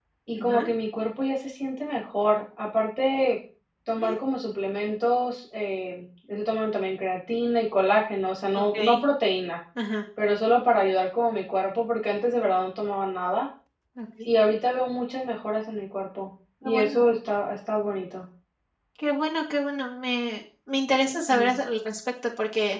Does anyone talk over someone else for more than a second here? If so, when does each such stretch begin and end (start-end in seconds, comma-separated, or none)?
none